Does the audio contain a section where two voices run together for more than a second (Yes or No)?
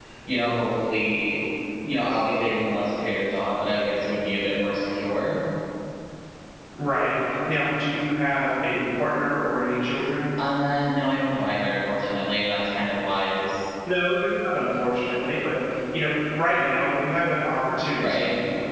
No